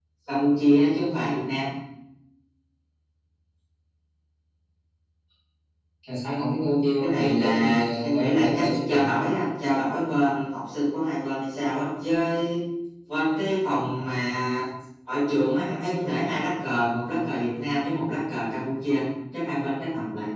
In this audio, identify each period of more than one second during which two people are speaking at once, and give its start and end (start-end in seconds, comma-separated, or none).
7.0-9.2